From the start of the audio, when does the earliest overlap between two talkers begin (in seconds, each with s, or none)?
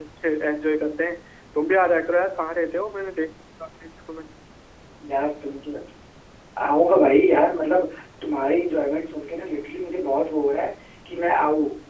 none